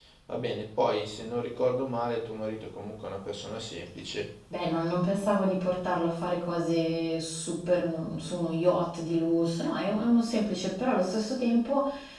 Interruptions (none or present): none